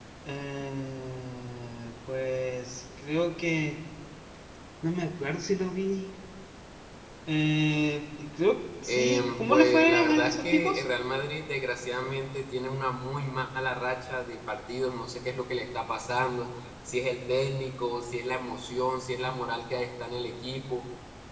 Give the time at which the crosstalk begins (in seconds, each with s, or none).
8.9 s